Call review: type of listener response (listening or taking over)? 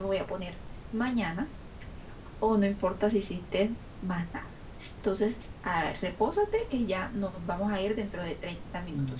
taking over